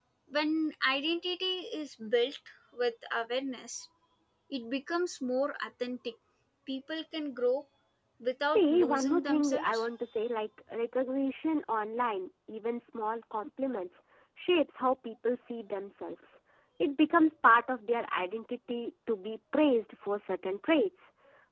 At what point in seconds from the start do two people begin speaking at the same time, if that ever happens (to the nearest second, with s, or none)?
9 s